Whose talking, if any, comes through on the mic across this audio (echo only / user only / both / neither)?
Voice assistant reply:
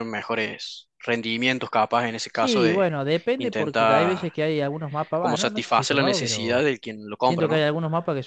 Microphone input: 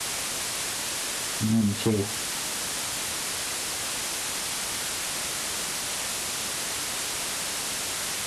user only